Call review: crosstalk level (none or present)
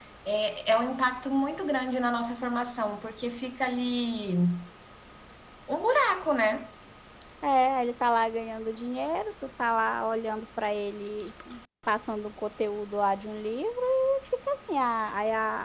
none